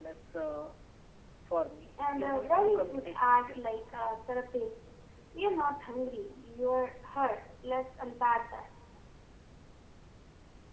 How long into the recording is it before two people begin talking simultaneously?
2.2 s

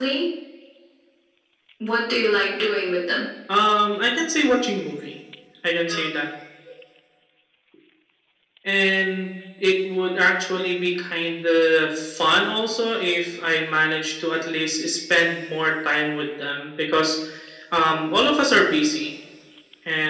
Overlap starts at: none

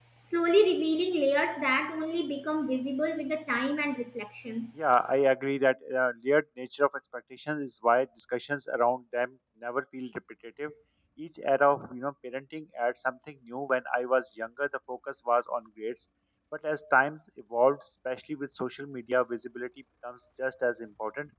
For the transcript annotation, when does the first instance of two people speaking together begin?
none

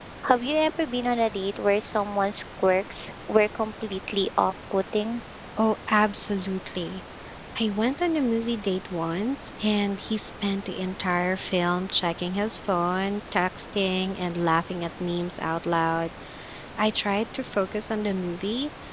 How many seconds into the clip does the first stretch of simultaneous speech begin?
none

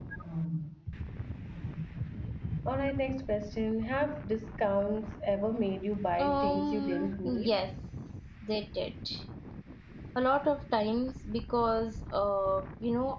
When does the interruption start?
6.2 s

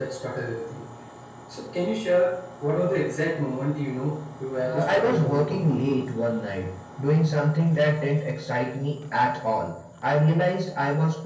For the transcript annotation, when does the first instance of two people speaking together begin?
4.6 s

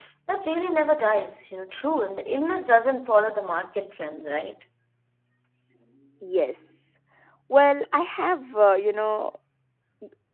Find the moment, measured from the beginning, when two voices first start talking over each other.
none

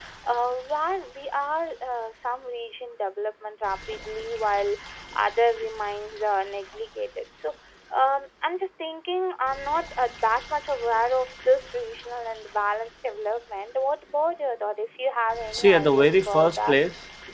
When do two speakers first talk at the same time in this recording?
15.5 s

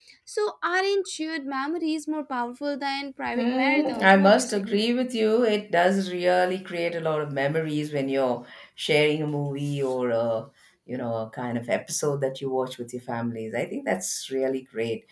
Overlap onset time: 3.4 s

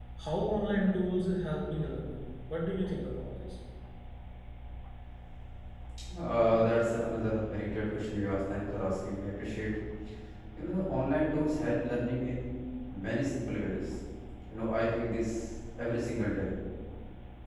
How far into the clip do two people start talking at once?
none

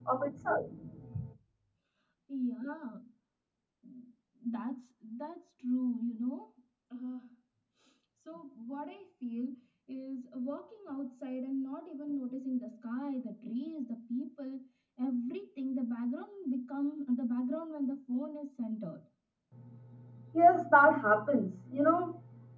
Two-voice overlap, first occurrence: none

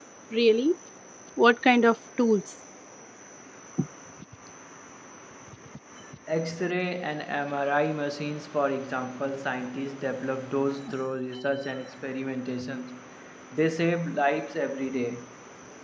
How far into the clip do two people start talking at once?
none

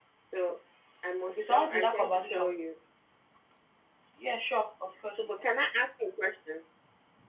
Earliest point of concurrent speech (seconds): 1.3 s

